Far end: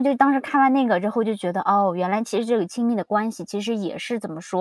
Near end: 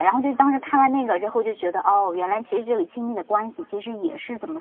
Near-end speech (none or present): none